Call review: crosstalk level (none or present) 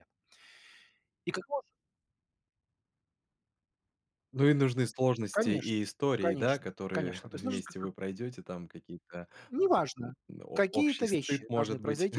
present